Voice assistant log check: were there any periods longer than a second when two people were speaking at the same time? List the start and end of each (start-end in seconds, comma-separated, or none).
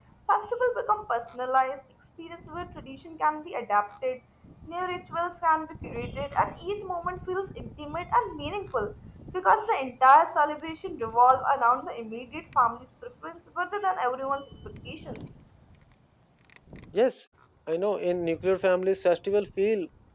none